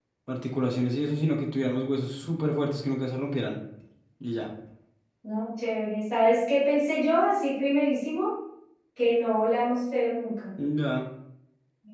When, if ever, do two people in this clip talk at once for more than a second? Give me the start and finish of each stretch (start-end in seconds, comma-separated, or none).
none